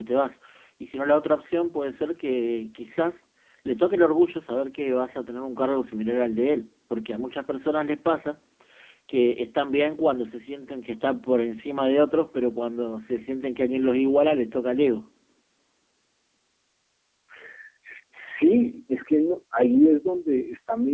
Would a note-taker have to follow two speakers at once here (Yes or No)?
No